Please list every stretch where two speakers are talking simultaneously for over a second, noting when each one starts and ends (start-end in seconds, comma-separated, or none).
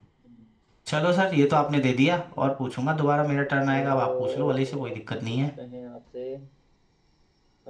3.4-5.4